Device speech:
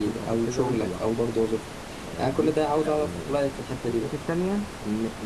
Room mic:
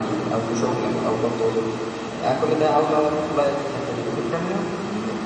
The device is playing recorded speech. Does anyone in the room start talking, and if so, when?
none

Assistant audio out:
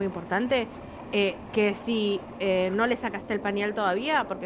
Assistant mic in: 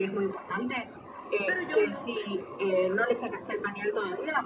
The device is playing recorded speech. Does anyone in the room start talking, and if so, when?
1.4 s

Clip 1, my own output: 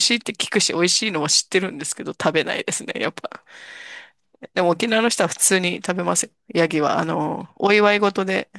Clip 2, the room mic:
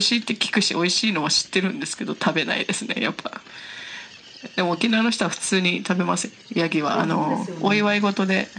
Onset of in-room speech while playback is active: 6.9 s

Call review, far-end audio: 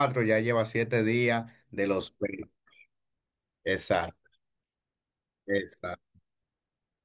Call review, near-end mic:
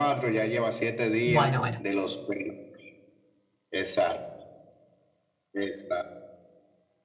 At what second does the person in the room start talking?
1.2 s

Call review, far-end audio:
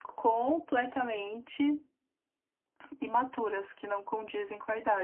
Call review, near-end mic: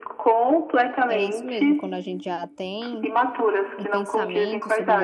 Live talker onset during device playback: 1.1 s

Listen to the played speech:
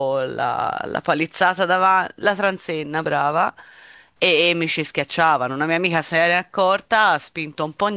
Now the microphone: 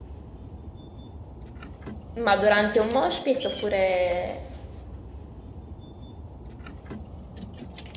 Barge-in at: 2.2 s

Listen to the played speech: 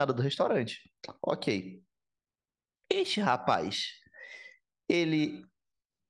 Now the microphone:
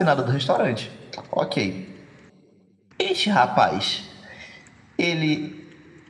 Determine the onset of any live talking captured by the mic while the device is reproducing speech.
none

